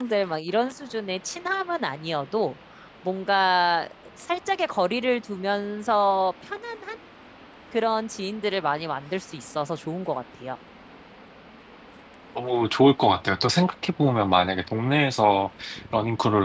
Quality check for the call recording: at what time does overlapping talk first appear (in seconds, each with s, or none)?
none